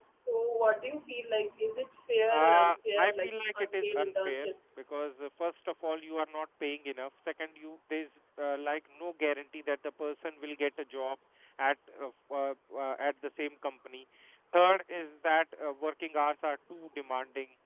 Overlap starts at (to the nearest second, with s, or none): 2 s